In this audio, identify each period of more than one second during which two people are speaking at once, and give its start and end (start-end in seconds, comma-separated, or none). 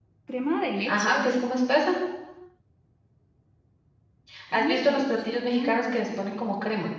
4.5-6.3